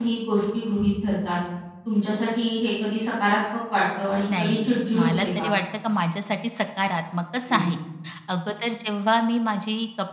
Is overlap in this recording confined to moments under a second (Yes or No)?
No